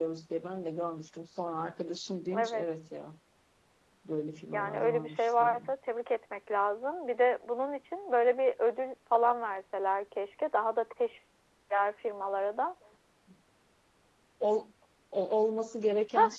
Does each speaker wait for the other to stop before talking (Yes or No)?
No